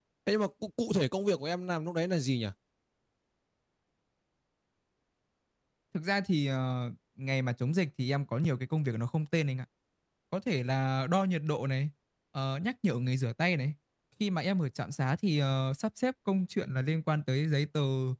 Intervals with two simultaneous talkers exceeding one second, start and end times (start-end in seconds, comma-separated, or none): none